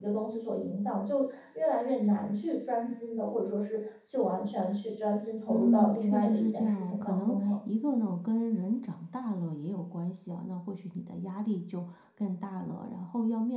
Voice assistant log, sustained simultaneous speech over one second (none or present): present